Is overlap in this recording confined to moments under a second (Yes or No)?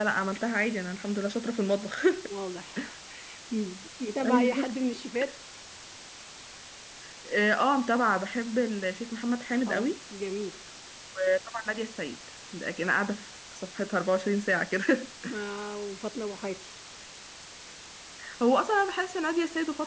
Yes